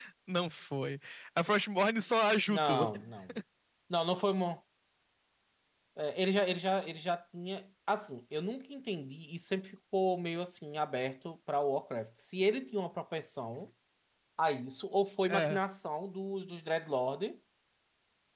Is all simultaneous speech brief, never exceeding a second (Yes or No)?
Yes